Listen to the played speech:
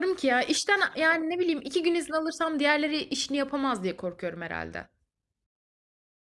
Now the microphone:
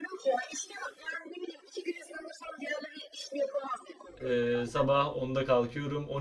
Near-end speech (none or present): present